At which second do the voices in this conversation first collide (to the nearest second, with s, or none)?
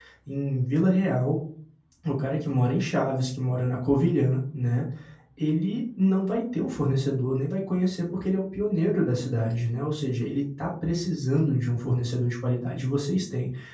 none